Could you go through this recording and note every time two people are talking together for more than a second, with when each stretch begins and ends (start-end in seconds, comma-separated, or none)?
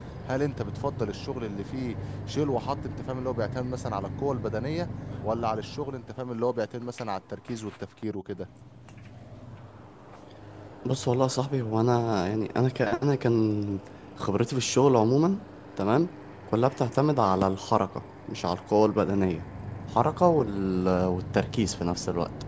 none